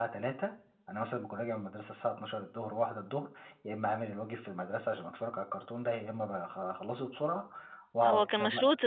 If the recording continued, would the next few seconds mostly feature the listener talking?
Yes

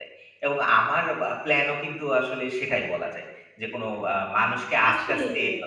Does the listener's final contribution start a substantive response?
Yes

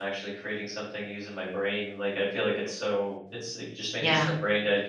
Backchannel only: Yes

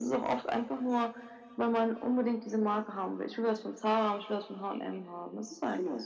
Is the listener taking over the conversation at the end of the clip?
Yes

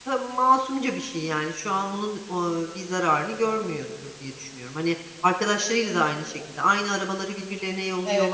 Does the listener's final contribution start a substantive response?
Yes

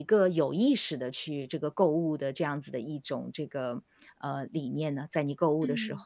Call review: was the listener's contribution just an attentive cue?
No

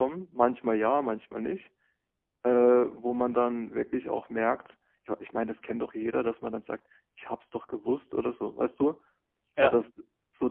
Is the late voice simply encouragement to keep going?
Yes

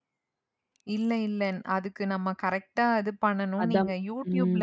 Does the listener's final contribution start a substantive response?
No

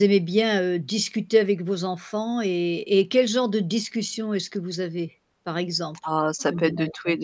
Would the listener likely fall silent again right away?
No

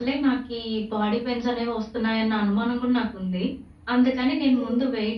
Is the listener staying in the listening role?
Yes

